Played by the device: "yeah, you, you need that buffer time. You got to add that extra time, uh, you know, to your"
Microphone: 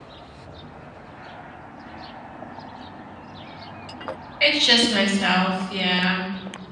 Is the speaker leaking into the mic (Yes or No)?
No